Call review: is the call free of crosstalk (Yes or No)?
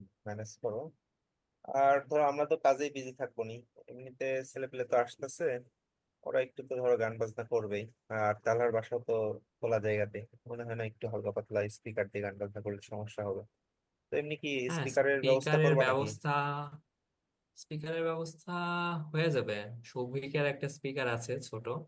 No